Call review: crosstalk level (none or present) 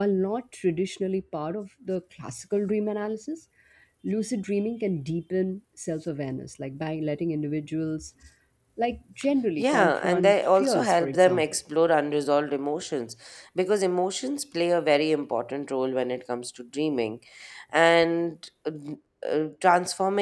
present